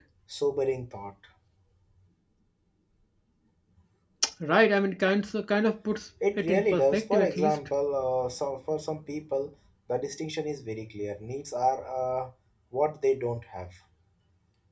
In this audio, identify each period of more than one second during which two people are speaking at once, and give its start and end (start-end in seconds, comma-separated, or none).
6.4-7.6